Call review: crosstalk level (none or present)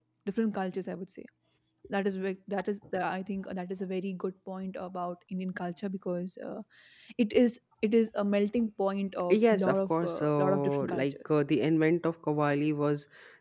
present